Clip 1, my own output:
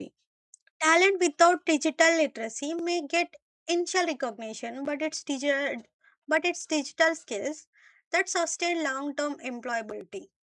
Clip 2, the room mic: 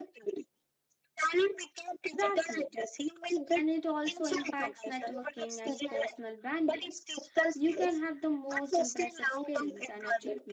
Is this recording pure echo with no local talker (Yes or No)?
No